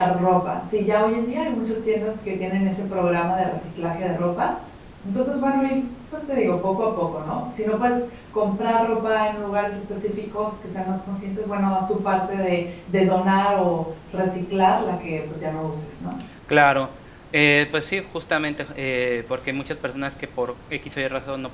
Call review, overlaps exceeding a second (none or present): none